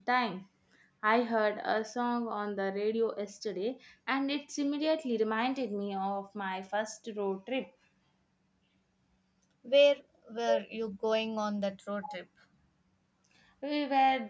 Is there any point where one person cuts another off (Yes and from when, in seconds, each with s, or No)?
No